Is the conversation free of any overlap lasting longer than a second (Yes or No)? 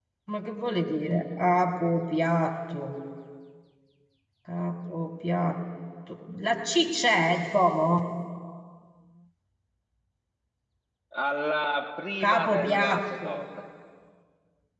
No